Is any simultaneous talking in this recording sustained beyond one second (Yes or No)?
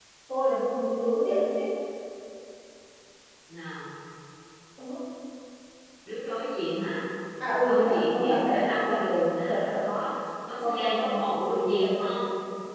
Yes